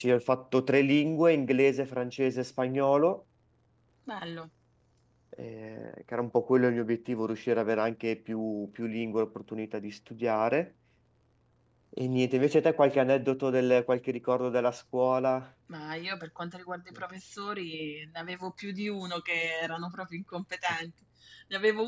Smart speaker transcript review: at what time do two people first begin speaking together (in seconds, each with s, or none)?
none